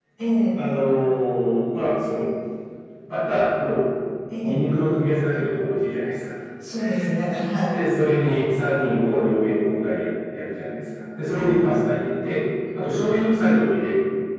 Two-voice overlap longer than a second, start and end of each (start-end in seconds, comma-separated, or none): none